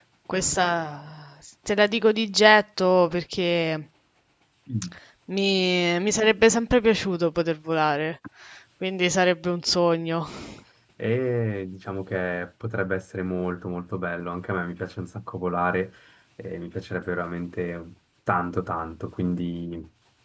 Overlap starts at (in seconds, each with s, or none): none